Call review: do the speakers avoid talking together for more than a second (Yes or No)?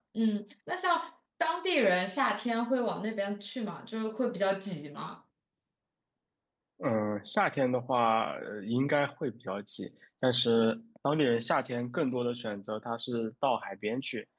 Yes